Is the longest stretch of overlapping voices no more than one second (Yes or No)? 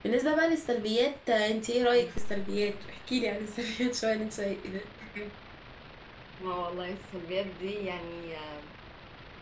Yes